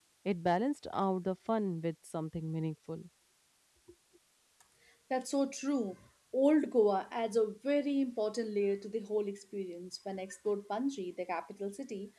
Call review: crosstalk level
none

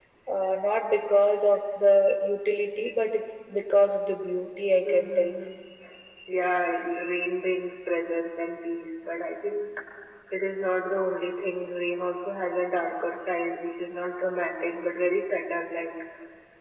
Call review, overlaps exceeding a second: none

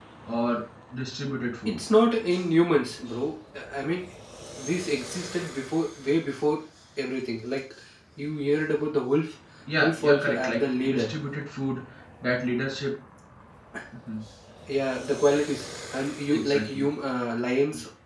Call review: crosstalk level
present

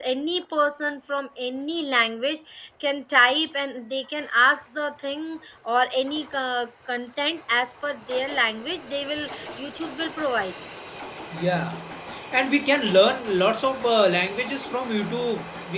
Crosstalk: none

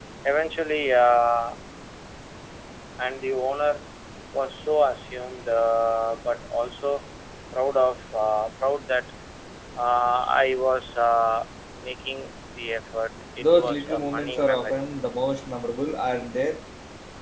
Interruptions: present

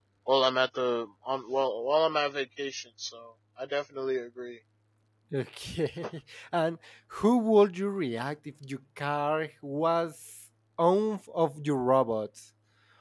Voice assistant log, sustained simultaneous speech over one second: none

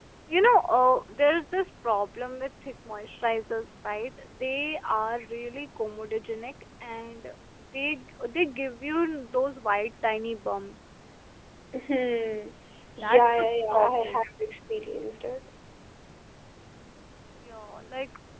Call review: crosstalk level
present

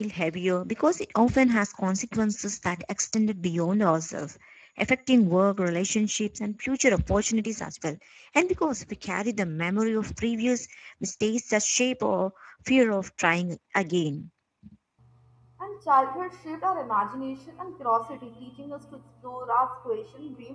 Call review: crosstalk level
none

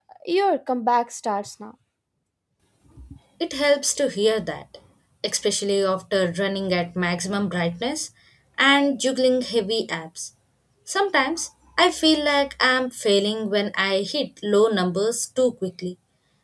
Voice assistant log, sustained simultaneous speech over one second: none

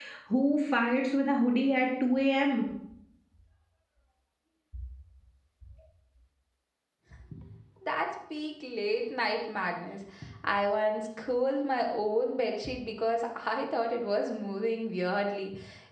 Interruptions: none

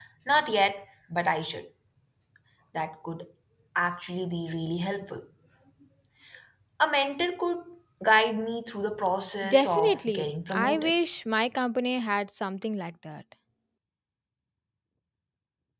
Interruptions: present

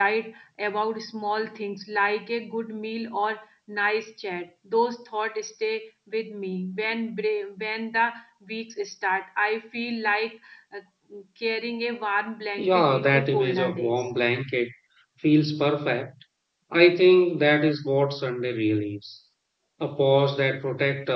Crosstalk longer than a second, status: present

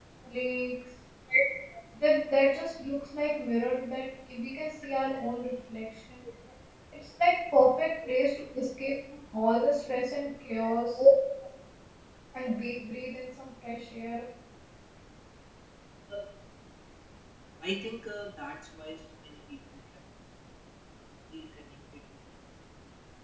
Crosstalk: none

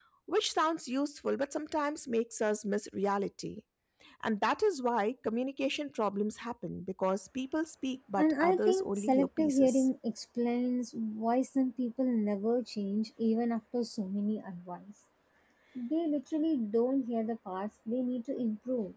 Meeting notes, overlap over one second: present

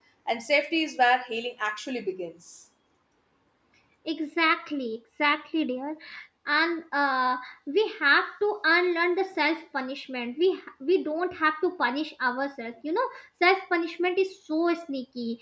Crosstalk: none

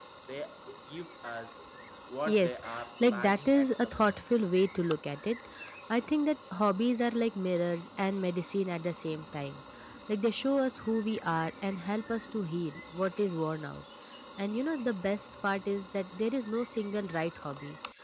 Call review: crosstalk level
present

